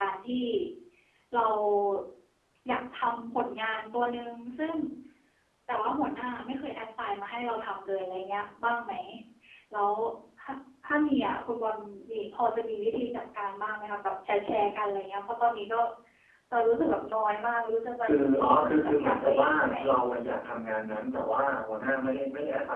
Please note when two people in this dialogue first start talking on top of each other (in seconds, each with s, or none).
18.5 s